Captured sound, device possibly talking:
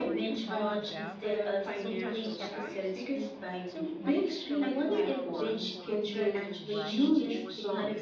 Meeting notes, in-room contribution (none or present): present